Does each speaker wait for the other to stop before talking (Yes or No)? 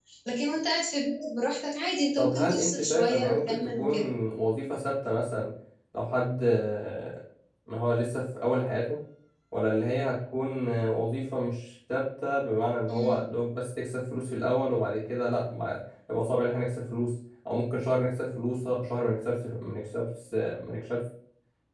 No